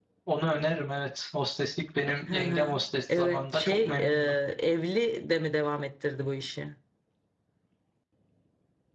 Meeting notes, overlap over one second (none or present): present